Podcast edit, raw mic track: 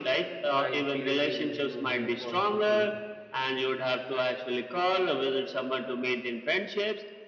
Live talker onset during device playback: 0 s

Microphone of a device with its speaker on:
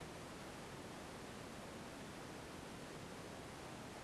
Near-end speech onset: none

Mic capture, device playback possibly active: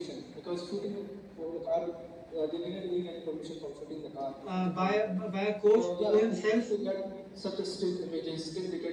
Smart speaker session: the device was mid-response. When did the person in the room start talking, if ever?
4 s

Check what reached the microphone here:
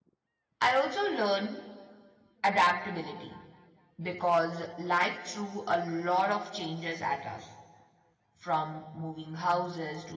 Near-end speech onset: 1 s

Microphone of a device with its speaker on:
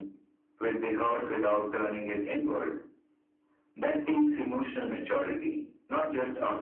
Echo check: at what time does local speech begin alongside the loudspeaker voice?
none

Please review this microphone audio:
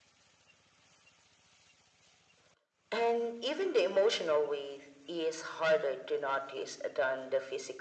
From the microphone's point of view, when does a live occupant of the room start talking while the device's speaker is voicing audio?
none

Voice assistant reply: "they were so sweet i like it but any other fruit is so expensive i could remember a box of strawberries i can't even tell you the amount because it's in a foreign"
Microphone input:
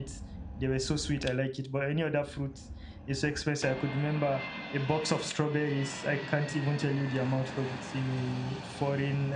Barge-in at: none

